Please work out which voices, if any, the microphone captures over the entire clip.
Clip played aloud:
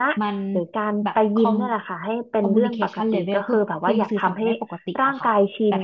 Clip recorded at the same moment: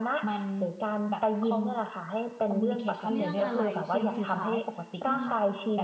both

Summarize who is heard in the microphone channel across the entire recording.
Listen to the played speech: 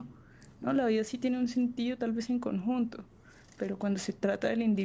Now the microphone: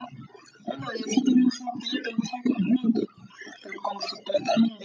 echo only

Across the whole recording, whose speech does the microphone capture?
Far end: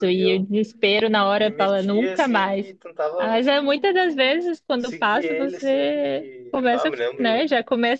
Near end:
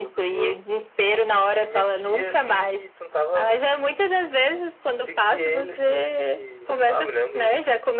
echo only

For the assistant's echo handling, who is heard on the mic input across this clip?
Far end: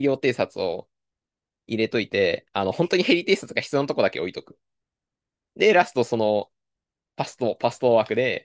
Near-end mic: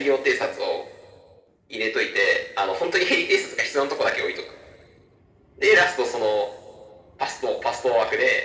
echo only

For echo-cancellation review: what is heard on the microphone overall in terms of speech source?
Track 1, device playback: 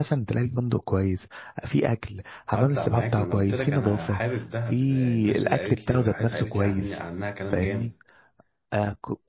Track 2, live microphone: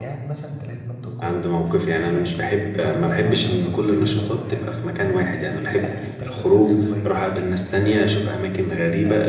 both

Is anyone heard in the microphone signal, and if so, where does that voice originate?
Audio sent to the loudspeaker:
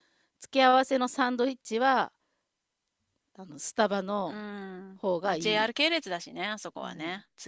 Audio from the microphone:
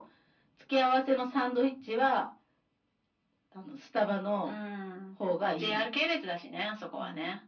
echo only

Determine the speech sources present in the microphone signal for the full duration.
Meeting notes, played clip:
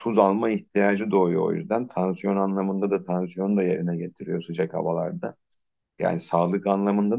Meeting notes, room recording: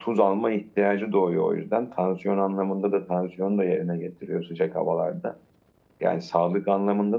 echo only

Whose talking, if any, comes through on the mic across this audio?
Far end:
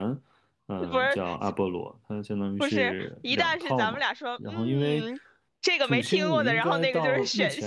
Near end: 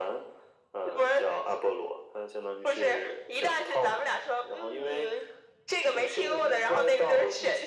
echo only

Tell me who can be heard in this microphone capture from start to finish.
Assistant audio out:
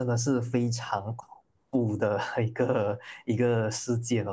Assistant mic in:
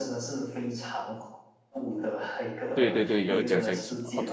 both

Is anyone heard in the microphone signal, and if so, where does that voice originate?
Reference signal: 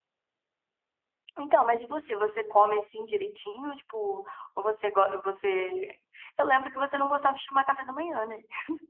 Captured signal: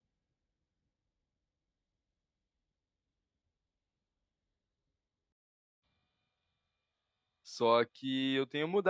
user only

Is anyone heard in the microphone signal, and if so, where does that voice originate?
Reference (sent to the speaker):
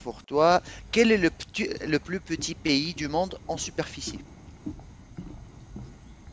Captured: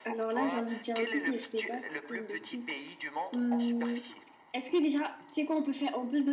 both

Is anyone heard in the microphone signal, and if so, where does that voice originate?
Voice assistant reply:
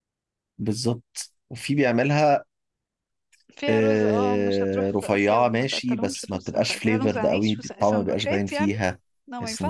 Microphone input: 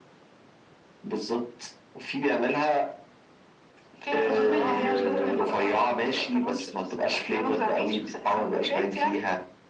both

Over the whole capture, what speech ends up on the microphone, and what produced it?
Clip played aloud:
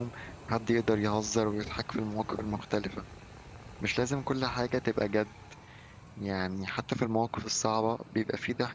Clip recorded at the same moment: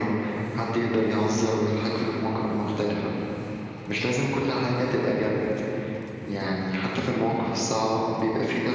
echo only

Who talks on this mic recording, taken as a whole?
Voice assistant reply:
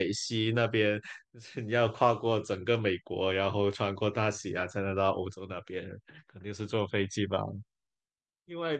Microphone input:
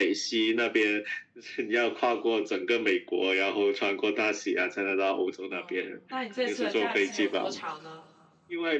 both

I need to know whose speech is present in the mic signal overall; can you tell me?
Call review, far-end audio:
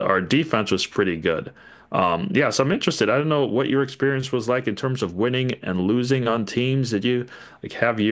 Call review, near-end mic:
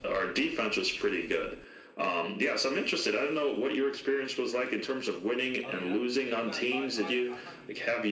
both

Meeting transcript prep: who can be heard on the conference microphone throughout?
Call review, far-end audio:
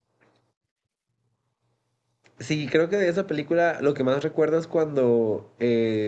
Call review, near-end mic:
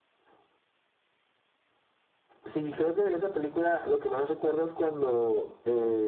echo only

